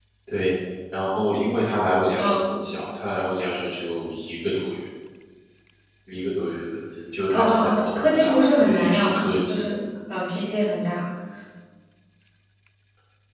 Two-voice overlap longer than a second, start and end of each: 7.3-9.7

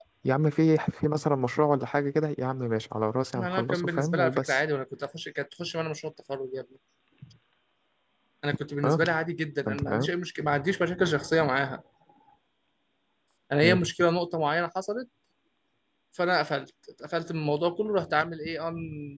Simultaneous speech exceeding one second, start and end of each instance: 3.4-4.6

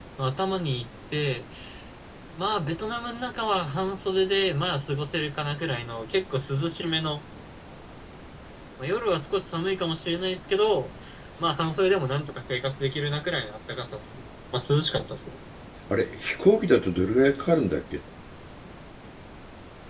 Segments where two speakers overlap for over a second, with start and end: none

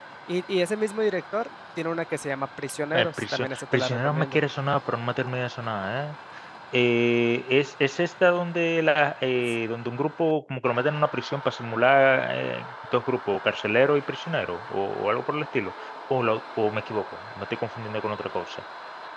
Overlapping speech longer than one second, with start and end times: 2.9-4.4

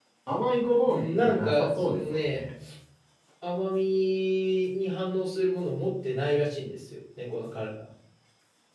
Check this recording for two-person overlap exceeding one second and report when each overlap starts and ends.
0.9-2.4

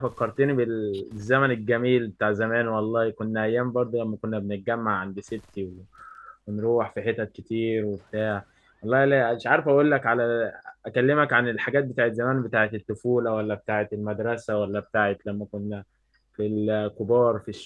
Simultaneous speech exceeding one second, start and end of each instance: none

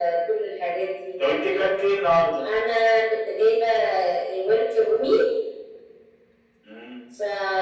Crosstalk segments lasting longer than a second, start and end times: none

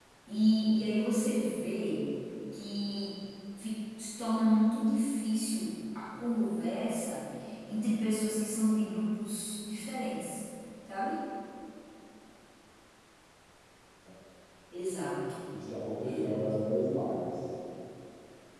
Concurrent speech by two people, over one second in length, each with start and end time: none

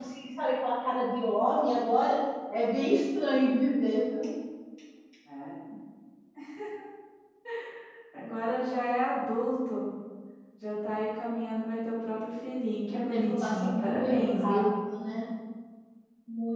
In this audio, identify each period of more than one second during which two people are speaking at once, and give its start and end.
12.9-14.7

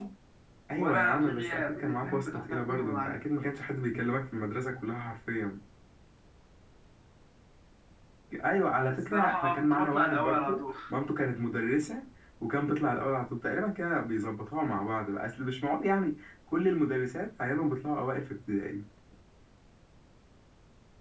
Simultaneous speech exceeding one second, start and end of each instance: 0.8-3.2, 8.9-10.8

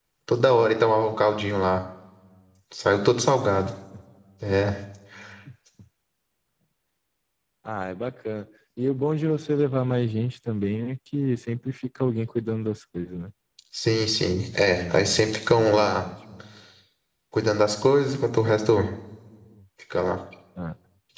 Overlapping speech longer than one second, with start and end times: 14.7-16.0

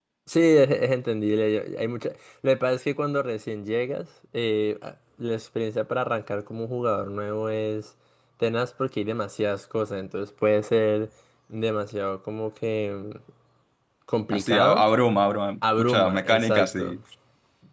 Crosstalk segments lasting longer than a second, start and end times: 15.8-17.0

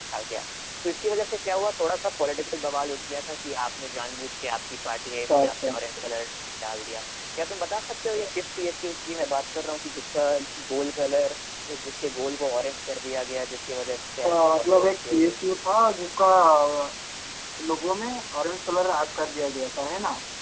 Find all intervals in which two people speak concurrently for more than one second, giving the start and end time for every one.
14.2-15.6

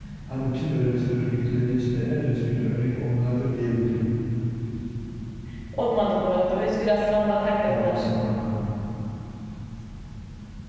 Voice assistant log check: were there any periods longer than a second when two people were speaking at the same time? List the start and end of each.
none

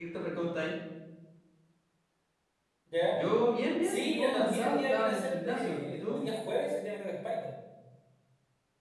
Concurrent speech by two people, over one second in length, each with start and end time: 3.8-6.2

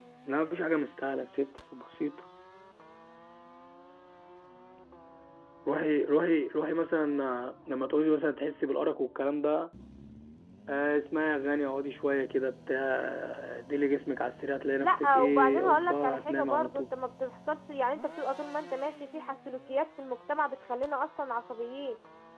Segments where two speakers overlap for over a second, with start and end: 14.8-16.9

